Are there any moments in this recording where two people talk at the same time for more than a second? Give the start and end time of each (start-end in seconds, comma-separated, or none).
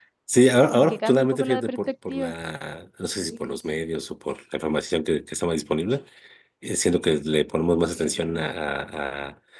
0.7-2.3